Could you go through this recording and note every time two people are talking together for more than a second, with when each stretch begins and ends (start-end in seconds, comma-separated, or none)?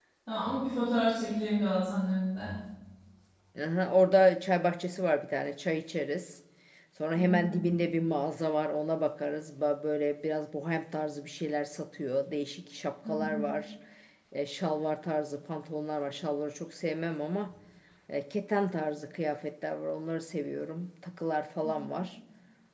none